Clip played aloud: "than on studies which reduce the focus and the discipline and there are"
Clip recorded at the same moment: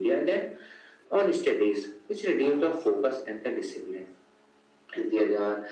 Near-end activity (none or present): none